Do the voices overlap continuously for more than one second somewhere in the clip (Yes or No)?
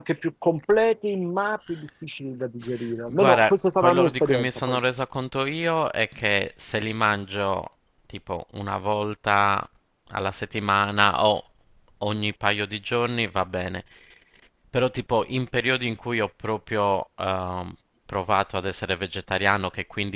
Yes